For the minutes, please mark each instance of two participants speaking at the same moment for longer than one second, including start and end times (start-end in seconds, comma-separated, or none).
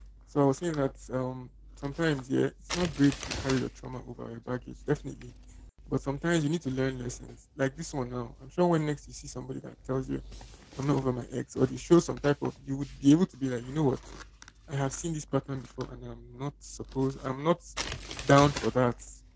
none